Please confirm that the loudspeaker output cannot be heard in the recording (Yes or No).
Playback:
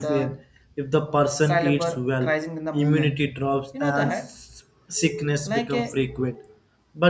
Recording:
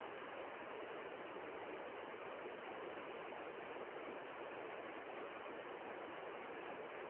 Yes